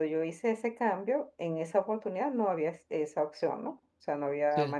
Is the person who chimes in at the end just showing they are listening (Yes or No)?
Yes